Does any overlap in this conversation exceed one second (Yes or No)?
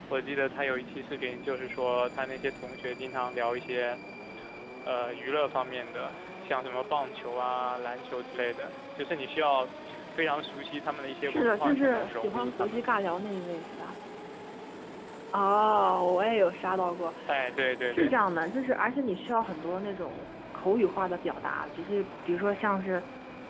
Yes